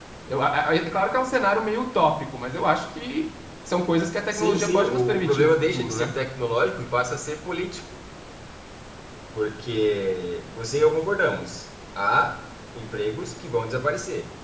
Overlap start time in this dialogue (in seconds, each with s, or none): 4.3 s